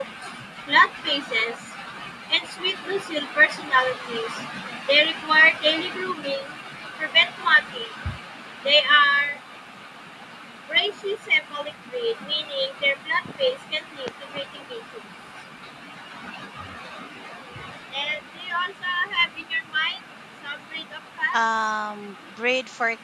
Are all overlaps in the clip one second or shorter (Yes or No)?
Yes